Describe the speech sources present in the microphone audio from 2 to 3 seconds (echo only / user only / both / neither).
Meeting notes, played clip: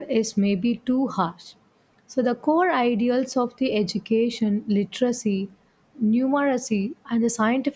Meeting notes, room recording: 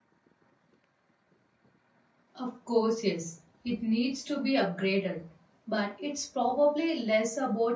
user only